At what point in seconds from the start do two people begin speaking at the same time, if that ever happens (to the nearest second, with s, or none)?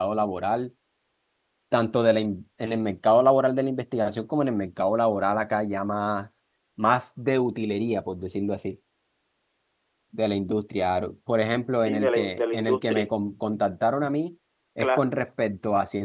12 s